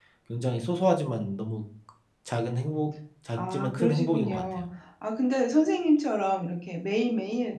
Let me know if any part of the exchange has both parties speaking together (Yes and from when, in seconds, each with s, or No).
Yes, from 3.3 s